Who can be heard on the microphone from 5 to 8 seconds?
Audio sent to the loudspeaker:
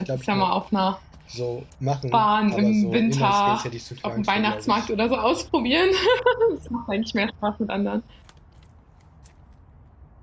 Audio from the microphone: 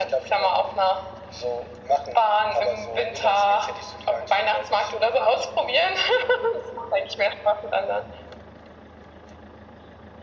echo only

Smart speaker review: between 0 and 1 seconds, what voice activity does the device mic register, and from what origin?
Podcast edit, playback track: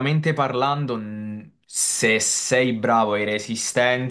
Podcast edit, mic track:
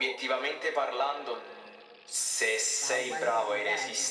echo only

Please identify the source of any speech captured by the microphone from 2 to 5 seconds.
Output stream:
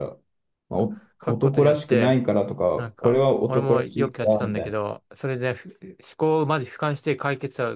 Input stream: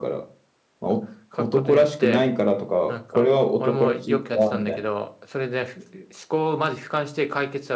echo only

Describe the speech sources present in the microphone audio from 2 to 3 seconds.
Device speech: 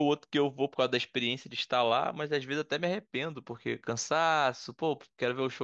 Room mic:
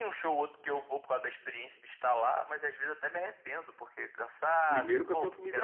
echo only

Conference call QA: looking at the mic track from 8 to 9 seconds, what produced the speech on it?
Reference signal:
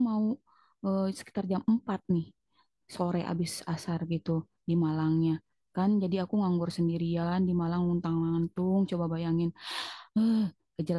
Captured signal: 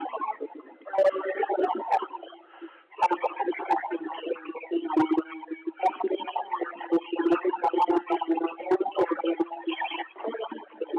echo only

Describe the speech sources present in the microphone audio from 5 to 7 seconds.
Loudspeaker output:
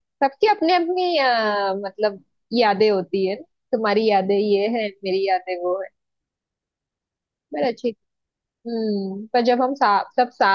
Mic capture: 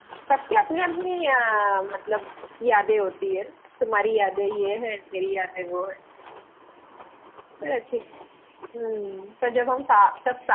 echo only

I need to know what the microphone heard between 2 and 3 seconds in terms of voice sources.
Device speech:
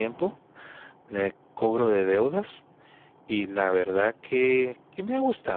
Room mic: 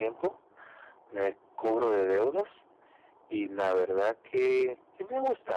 echo only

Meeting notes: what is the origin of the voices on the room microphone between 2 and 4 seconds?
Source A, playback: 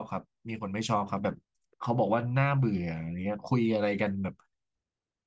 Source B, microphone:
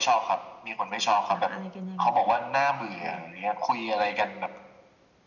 both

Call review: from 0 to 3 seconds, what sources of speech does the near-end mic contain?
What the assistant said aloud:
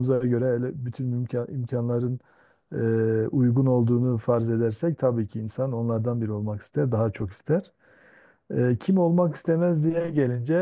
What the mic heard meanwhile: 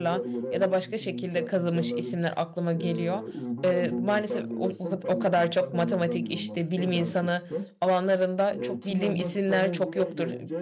both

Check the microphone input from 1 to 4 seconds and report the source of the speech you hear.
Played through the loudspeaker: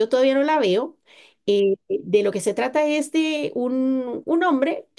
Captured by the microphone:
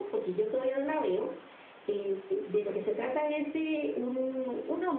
echo only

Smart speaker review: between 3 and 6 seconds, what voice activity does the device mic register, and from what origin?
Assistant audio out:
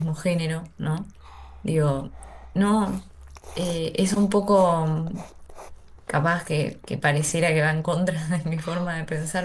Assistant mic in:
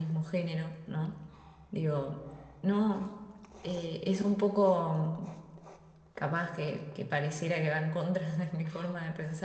echo only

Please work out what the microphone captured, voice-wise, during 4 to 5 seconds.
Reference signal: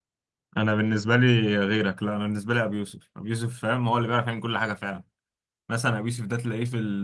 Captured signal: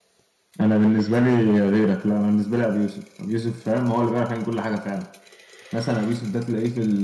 echo only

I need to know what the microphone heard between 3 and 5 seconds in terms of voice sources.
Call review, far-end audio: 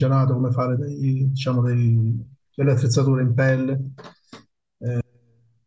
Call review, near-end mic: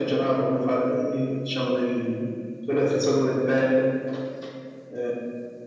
echo only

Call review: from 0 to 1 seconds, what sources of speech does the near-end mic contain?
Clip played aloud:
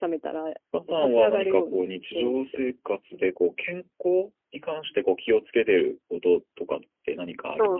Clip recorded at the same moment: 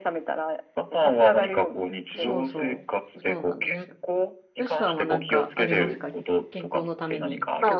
echo only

